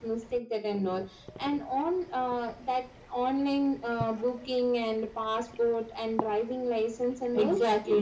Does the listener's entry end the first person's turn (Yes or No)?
Yes